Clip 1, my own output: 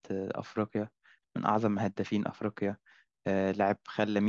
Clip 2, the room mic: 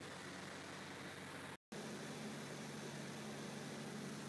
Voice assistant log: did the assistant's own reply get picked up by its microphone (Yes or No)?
No